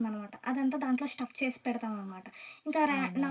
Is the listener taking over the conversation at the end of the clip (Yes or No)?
No